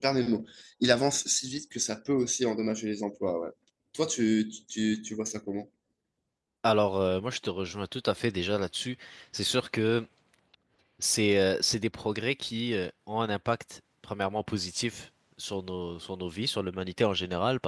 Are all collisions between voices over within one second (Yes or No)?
Yes